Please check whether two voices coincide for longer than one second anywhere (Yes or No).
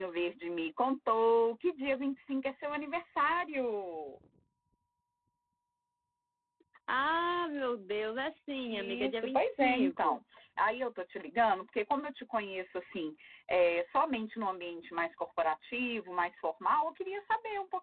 Yes